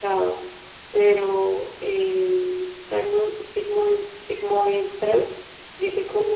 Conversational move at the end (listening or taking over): listening